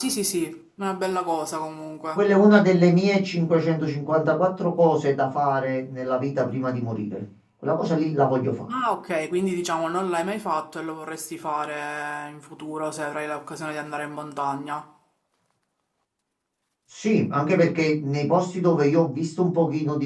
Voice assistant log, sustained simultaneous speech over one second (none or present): none